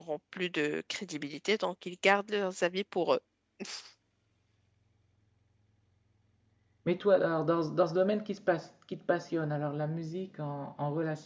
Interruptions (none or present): none